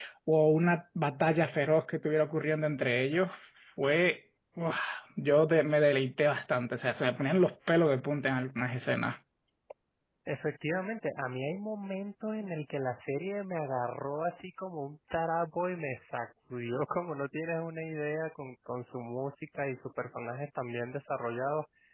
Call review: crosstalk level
none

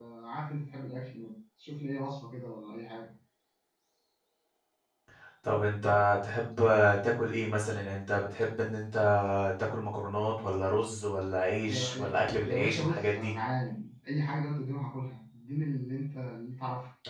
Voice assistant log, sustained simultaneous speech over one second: present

